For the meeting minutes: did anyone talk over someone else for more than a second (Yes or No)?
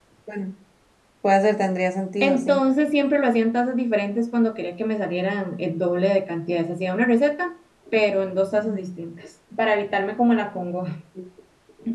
No